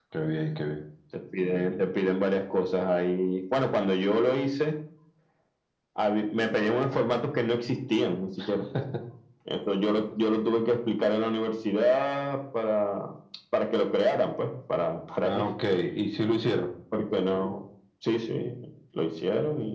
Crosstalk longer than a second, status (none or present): none